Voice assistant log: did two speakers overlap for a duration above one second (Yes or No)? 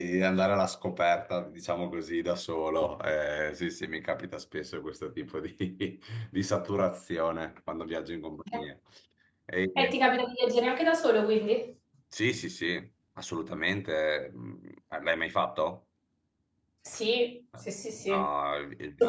No